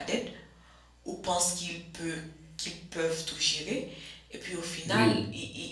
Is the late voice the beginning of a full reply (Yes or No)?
No